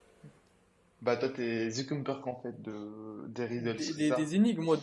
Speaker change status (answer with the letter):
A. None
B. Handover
B